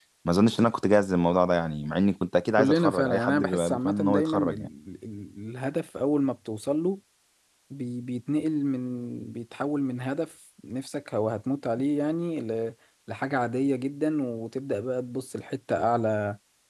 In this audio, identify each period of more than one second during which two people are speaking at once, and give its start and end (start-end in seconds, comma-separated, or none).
2.6-4.5